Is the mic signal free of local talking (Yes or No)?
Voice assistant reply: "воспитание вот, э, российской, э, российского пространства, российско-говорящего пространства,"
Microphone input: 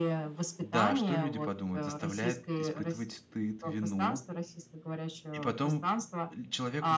No